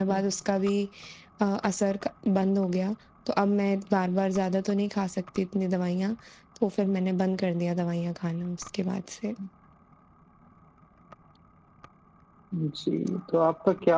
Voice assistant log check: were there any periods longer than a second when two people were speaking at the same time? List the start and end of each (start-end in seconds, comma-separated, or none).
none